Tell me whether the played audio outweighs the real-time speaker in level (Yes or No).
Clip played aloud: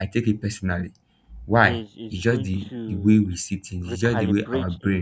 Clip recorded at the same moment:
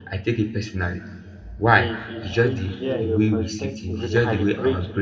Yes